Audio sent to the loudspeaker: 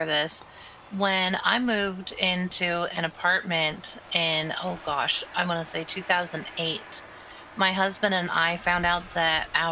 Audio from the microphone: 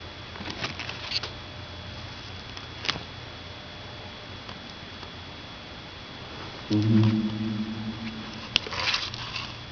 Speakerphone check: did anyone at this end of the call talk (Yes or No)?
Yes